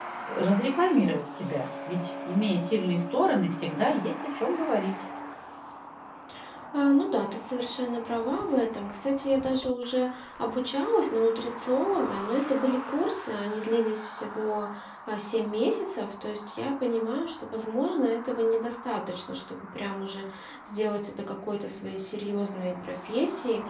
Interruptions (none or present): none